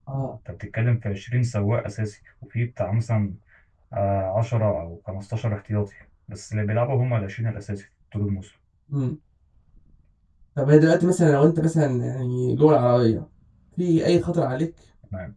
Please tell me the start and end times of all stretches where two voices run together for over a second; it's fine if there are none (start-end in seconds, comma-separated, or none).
none